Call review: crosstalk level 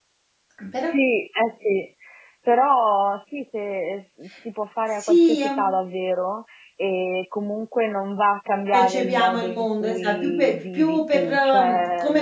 present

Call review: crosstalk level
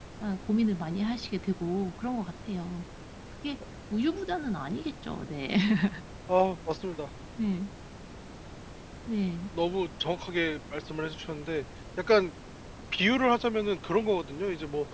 none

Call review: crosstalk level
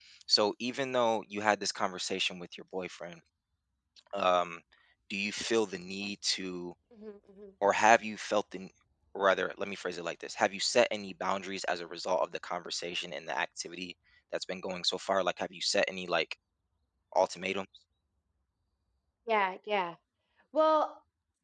none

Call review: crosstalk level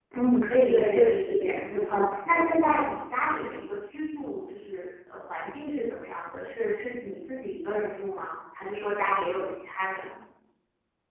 present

